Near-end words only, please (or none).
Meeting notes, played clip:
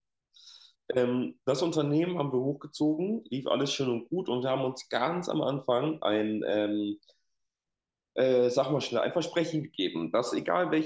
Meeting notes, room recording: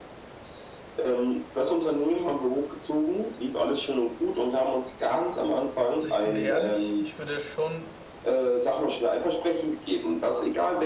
Also ich bin dir ehrlich, ich würde schon